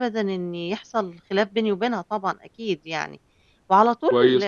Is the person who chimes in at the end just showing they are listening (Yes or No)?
No